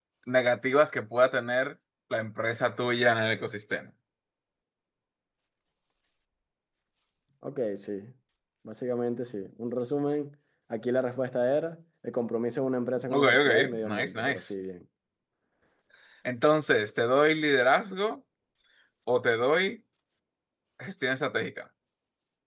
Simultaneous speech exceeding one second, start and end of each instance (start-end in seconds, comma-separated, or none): 13.0-14.4